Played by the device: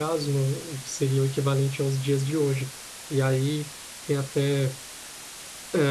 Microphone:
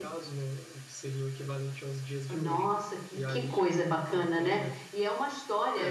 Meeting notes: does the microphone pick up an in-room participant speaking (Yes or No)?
Yes